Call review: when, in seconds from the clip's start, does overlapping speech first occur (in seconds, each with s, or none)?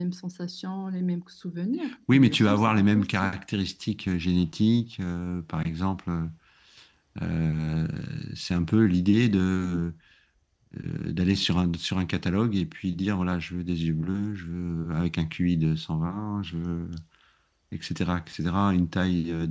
2.1 s